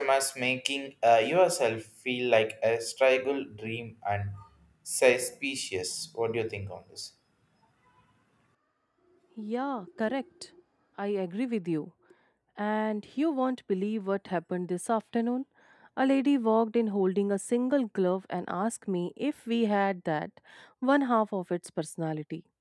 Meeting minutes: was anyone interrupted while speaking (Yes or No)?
No